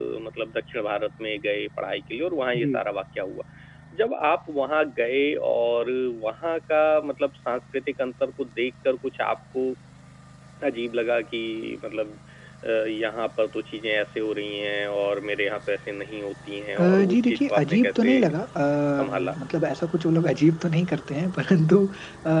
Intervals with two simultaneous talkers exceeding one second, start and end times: 16.8-18.3

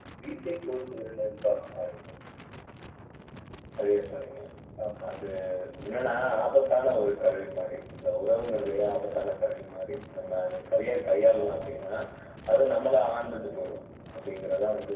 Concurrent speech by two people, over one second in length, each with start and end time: none

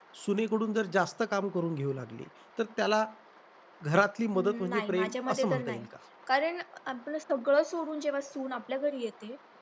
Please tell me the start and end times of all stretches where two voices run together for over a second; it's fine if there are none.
4.3-5.8

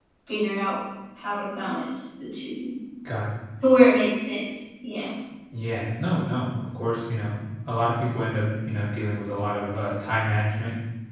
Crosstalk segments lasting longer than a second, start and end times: none

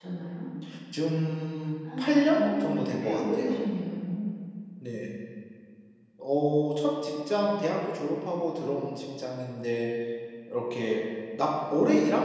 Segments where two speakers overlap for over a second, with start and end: 2.3-3.6

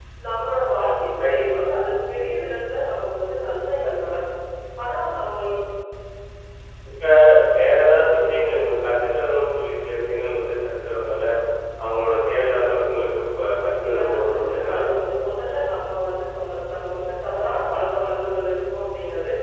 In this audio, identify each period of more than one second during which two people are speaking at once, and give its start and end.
13.6-14.9

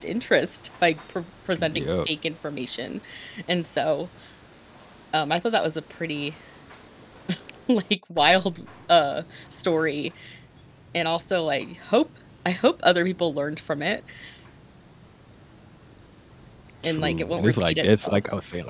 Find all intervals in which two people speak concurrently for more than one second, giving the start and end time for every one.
16.8-18.2

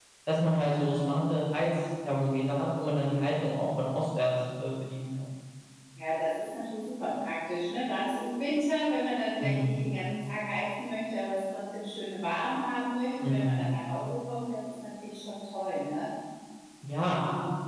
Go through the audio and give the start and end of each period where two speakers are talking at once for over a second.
none

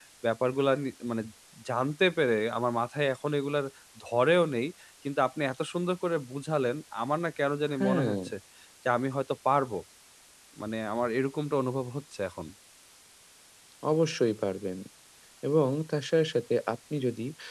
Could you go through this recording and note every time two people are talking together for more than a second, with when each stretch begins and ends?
none

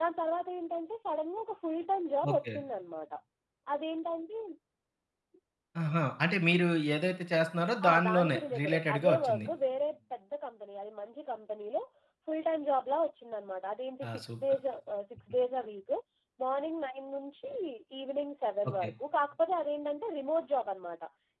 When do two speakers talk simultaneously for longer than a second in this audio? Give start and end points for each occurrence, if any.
7.9-9.5

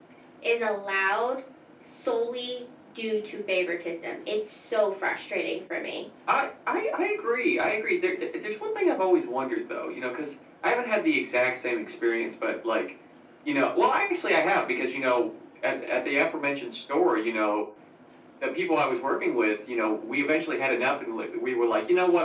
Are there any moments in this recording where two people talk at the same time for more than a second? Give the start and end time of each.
none

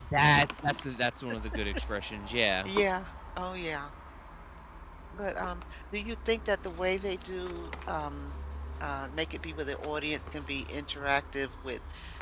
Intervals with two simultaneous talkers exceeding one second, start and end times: none

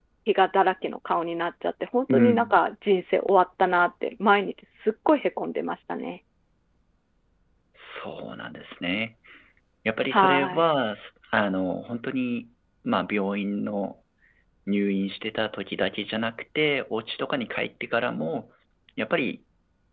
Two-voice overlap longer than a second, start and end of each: none

